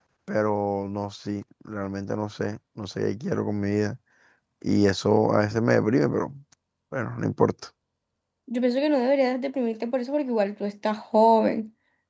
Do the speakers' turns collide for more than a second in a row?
No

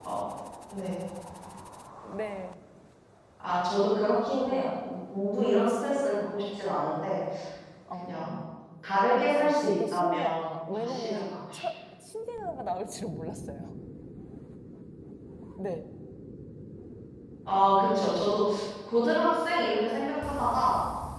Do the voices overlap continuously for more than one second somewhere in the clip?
Yes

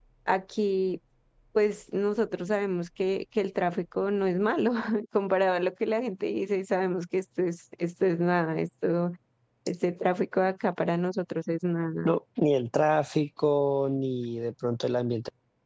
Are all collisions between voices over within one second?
Yes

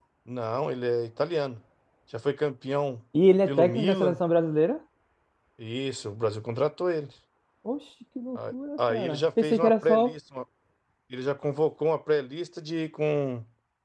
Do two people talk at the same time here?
Yes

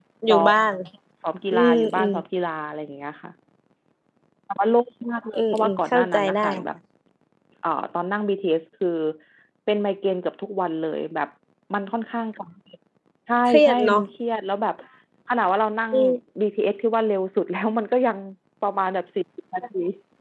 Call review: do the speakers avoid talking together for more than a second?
No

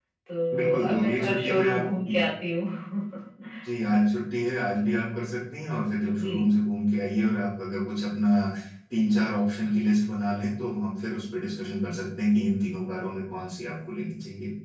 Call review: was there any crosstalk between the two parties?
Yes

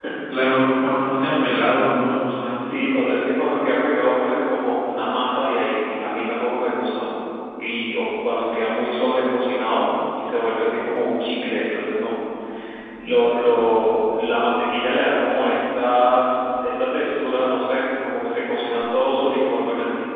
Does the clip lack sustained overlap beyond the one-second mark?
Yes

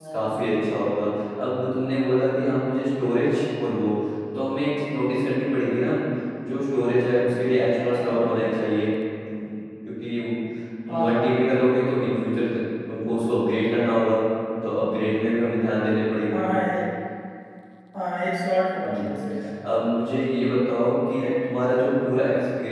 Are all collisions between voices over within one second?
Yes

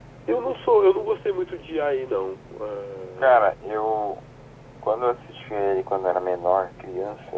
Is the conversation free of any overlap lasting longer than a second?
Yes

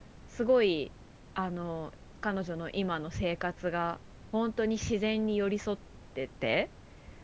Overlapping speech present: No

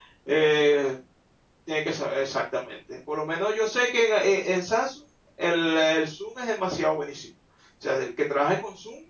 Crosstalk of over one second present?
No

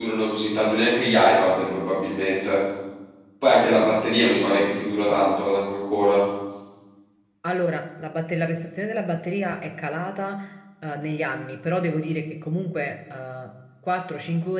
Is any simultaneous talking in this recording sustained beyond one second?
No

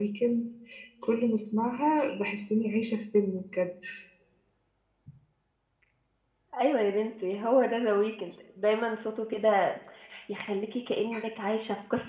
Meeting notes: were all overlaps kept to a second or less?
Yes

